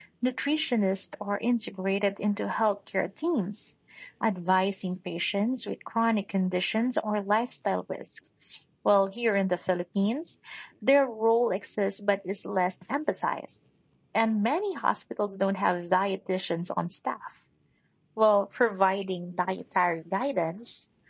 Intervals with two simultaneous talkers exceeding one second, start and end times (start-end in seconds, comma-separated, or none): none